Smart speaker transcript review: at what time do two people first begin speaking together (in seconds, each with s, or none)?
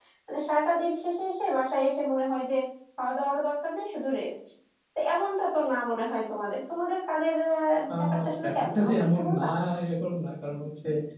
7.9 s